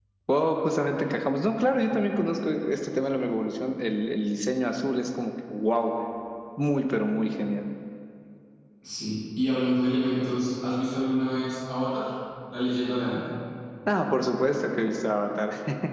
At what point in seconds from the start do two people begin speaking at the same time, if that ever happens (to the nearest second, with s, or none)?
none